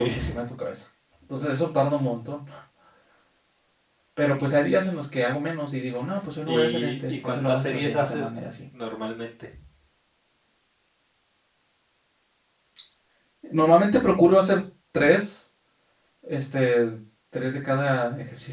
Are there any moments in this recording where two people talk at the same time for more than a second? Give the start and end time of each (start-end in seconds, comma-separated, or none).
6.5-8.4